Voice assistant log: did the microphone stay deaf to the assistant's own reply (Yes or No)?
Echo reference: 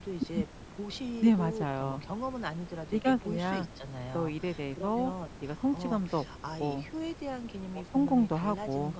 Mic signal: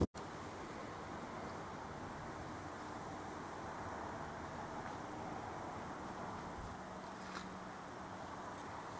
Yes